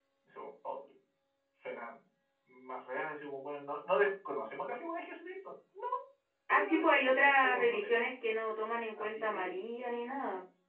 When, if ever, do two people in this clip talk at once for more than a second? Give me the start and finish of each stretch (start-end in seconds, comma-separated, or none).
6.5-8.0